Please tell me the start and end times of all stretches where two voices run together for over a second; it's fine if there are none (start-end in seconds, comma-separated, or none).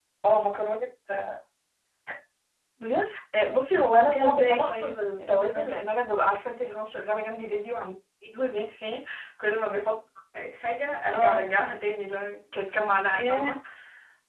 3.9-5.8